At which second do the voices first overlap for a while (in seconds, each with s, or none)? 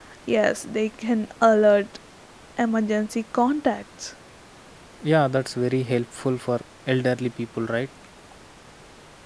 none